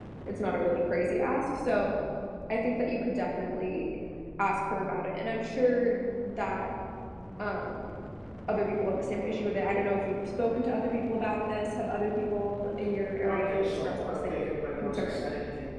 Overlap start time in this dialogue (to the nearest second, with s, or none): 13 s